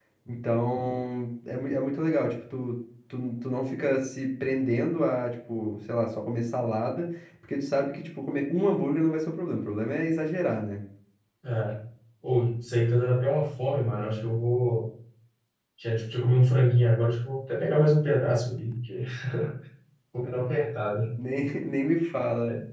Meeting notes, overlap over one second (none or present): none